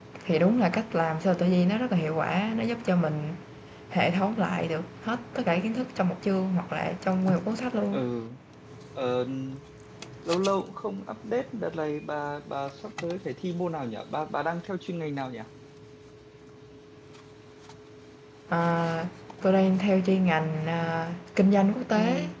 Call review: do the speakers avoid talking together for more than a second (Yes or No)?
Yes